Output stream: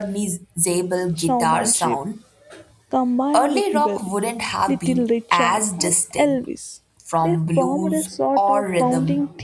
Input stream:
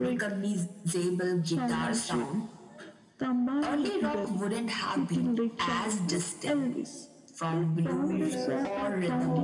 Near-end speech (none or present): present